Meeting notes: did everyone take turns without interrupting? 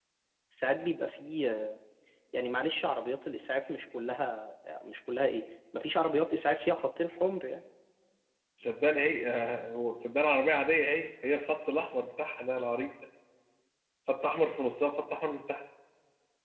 Yes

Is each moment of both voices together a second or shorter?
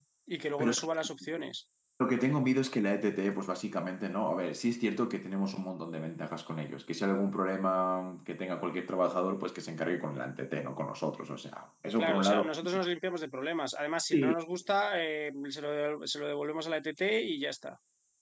Yes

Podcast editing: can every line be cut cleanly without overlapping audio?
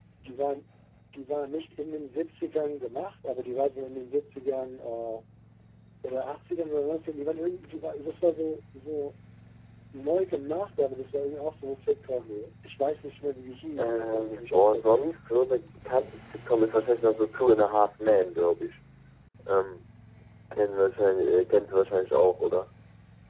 No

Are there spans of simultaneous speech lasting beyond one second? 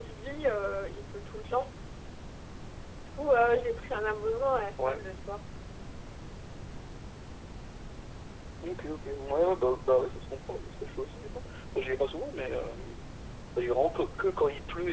No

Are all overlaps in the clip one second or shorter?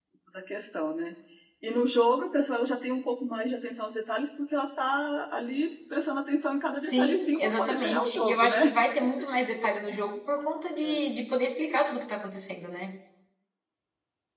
No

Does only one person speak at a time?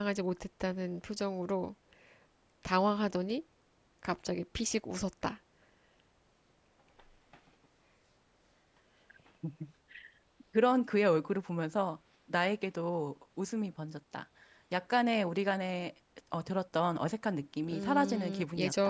No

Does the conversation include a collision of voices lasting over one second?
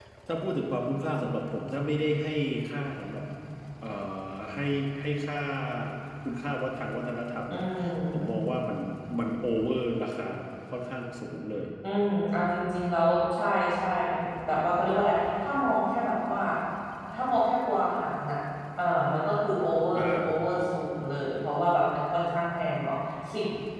No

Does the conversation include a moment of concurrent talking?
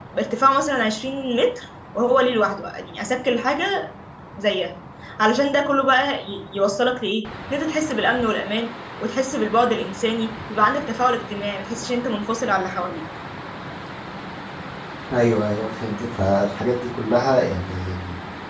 No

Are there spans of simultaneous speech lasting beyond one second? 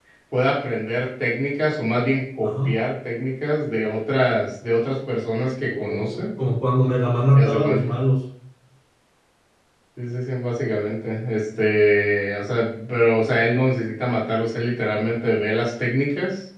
No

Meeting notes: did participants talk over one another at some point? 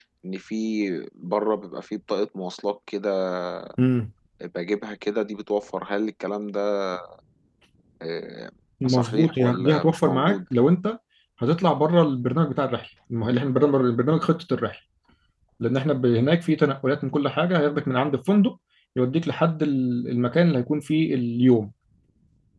Yes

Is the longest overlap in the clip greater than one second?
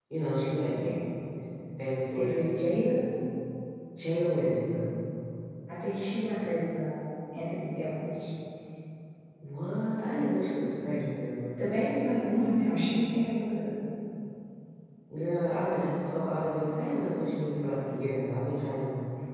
No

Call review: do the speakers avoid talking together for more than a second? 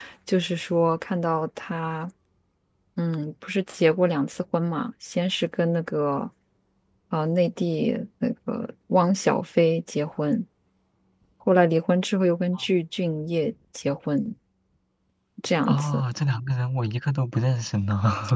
Yes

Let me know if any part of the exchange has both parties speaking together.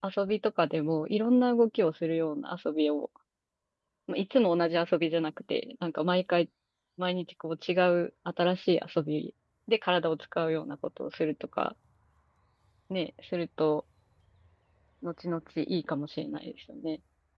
No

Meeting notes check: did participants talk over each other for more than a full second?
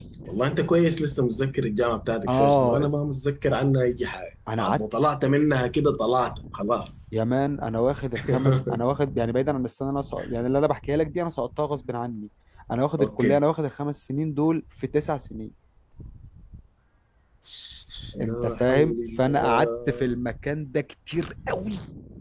Yes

